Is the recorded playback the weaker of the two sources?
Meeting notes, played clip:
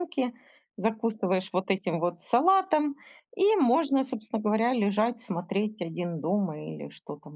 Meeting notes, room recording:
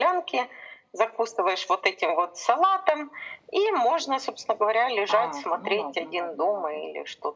No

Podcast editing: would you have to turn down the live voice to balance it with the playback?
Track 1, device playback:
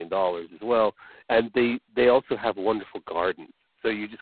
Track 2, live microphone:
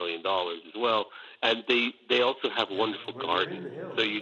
No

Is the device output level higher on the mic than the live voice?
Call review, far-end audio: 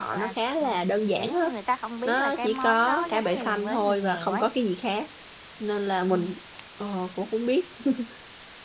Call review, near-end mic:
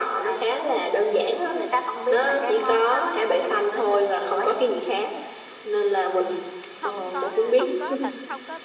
Yes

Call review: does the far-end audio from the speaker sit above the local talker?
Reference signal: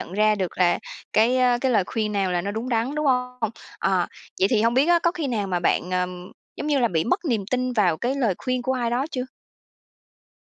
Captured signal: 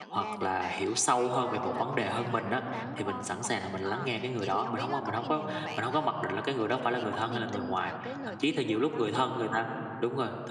No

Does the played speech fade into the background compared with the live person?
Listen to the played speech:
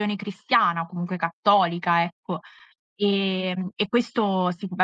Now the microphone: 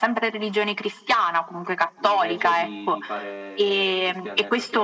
No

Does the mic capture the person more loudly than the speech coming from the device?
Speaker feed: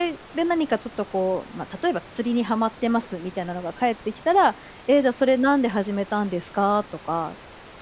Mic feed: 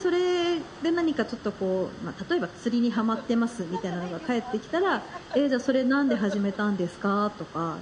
No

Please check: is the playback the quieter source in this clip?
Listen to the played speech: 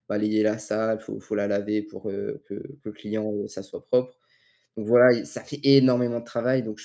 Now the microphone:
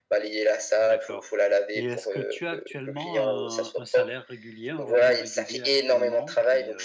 No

